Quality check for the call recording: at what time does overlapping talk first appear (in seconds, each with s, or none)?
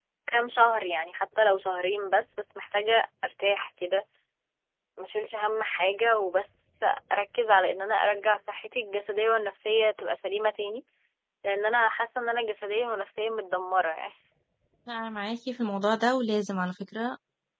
none